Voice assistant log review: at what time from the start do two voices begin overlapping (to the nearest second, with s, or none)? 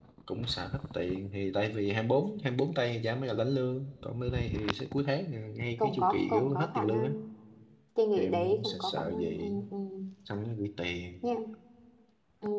6 s